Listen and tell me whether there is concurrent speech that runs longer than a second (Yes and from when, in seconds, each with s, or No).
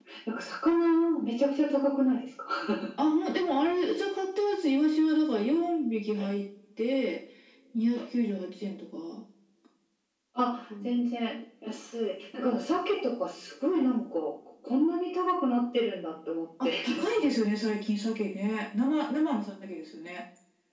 No